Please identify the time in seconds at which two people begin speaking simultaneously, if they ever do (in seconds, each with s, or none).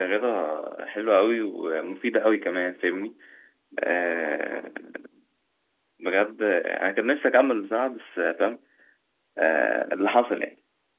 none